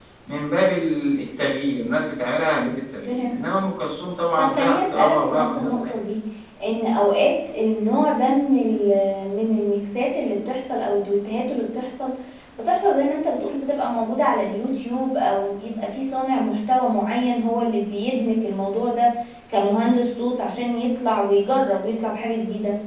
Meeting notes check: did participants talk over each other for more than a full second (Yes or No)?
Yes